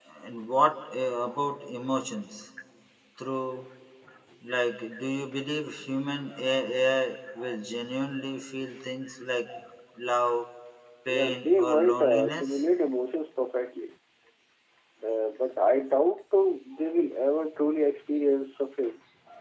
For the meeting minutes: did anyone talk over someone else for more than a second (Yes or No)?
Yes